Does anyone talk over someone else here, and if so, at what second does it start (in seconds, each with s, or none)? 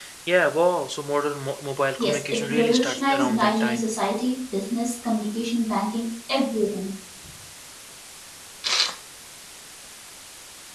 2.0 s